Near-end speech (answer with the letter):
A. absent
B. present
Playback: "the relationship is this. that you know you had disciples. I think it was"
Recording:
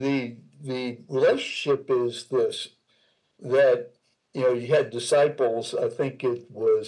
A